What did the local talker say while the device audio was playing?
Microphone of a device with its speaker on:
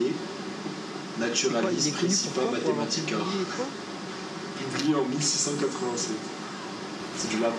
C'est quoi? Il est connu pour quoi? Pour avoir publié quoi?

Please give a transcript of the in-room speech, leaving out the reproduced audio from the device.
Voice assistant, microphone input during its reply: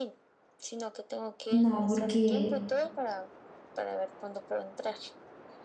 No, porque

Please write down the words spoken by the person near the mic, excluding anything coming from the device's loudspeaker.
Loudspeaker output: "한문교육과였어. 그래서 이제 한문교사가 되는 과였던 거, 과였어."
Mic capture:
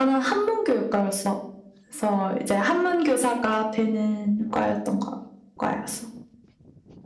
none

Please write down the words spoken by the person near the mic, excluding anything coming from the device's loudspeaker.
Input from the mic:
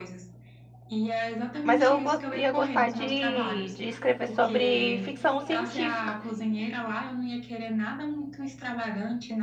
Mas eu gos- ia gostar de, de escrever sobre ficção científica

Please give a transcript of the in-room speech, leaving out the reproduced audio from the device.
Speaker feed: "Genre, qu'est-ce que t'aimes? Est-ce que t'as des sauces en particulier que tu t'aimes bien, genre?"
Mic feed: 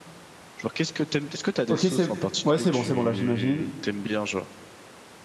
Ok, c'est ouais, c'est bon, c'est bon, là j'imagine.

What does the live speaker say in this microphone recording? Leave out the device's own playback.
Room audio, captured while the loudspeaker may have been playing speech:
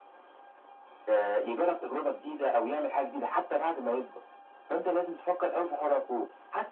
none

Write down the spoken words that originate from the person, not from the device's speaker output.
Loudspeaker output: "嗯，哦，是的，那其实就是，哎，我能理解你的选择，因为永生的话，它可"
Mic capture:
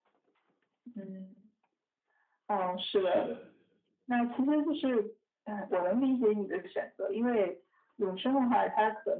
是的。

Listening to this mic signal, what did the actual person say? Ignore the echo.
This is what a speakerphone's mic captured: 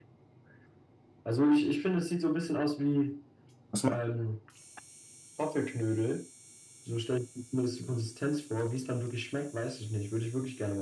das macht,

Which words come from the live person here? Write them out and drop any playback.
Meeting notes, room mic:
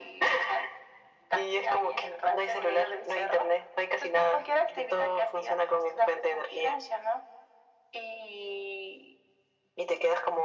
none

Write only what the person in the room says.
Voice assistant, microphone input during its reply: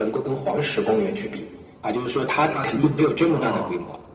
踏青。哦，

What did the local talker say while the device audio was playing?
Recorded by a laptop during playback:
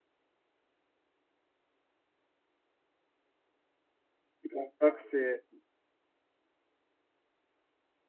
Je pense pas que c'est.

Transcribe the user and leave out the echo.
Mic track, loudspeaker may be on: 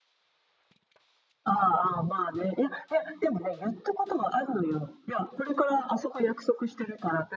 none

